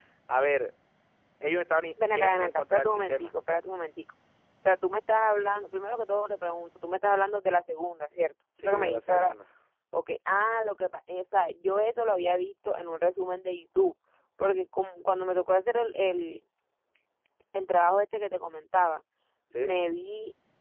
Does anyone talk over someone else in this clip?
Yes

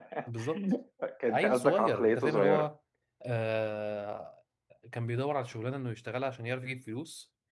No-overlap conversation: No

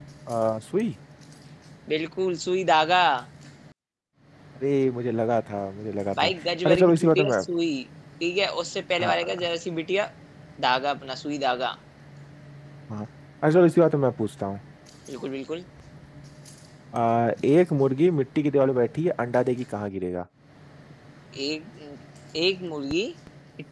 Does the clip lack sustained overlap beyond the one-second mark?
No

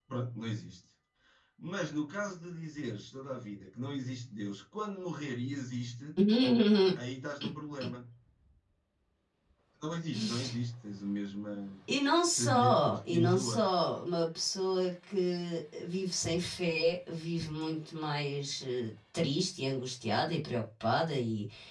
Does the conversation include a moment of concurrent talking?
Yes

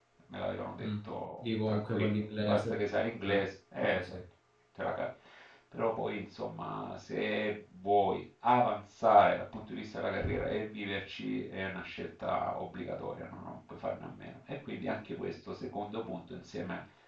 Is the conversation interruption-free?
No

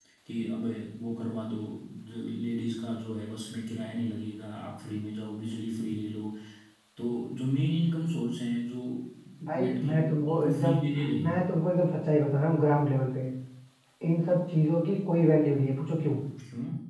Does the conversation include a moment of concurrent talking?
Yes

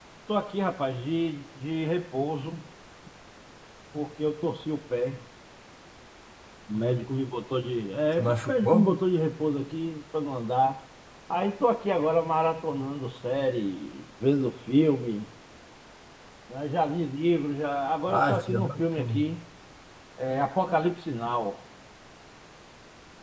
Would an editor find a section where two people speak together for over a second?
Yes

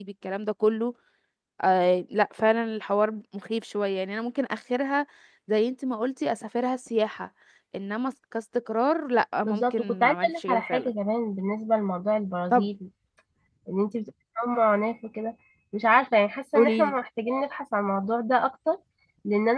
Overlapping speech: Yes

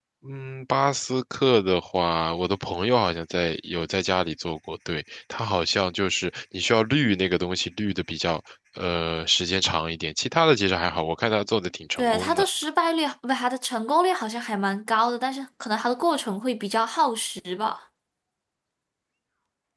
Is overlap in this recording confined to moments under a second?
Yes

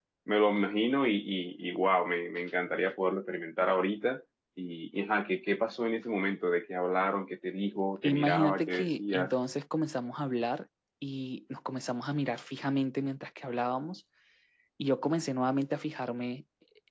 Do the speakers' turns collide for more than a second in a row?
Yes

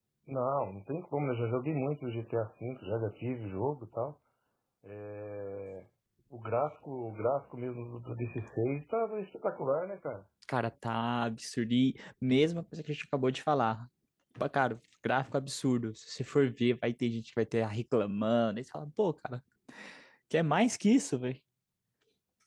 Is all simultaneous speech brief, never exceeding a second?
Yes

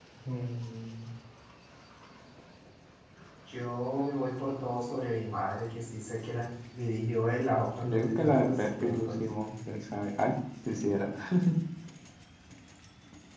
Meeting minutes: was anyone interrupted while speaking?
Yes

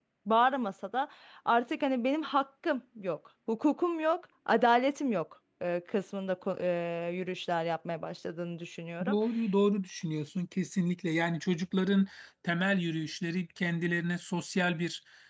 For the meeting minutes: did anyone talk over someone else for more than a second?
No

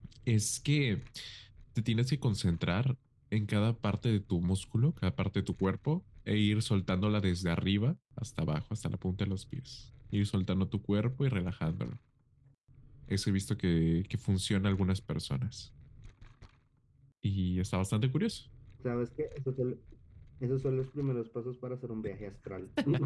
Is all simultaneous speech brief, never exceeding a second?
Yes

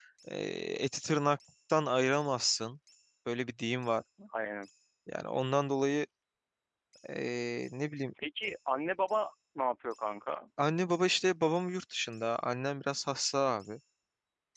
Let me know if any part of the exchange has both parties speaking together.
No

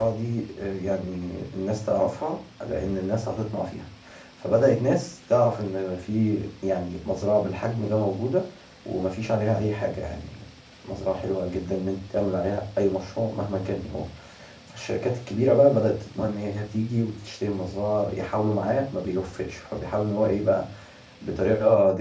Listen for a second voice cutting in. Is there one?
No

